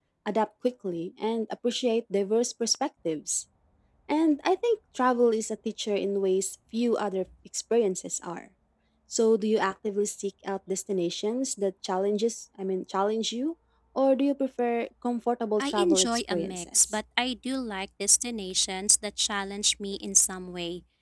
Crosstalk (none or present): present